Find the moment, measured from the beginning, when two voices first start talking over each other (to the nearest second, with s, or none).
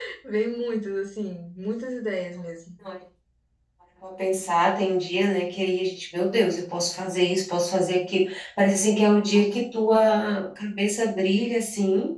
none